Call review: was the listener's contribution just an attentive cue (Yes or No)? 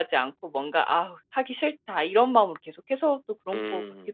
No